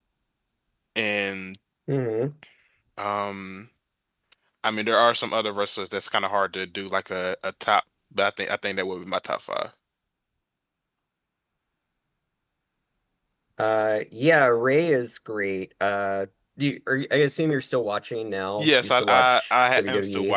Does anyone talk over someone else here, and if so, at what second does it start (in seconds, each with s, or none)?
18.6 s